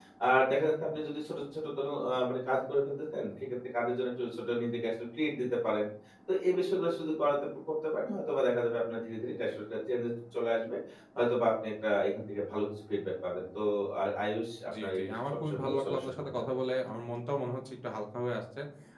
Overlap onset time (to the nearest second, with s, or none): 15 s